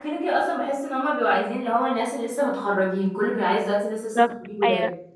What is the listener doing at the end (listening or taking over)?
taking over